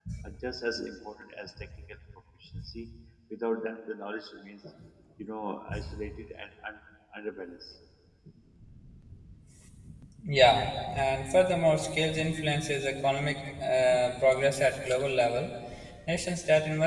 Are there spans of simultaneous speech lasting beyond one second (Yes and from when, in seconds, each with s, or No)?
No